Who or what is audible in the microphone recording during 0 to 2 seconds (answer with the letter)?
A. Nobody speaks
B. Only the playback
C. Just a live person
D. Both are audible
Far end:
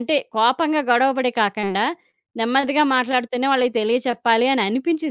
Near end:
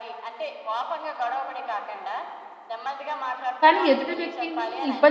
B